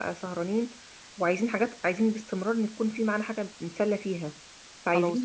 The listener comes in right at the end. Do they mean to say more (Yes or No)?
No